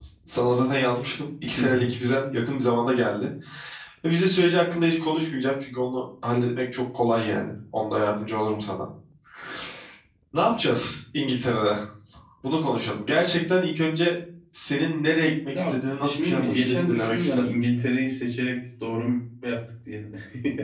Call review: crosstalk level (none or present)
present